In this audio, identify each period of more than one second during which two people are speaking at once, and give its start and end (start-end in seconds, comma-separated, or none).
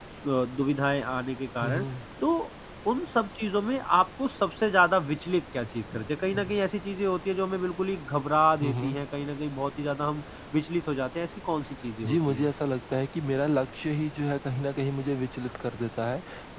none